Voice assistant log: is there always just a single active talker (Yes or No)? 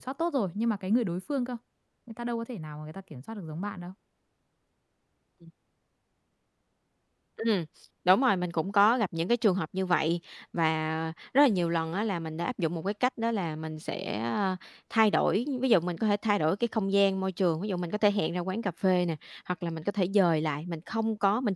Yes